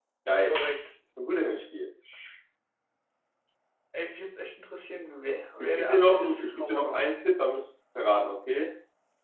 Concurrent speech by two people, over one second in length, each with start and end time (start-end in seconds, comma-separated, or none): 5.6-7.1